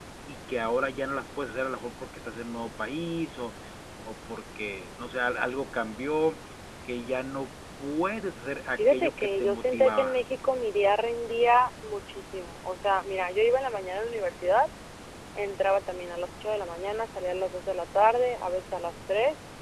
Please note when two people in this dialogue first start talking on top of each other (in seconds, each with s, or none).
8.8 s